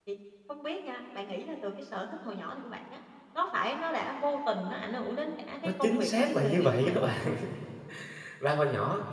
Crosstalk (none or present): present